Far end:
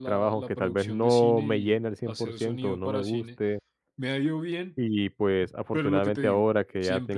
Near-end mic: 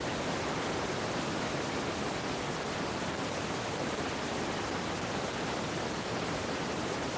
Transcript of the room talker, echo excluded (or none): none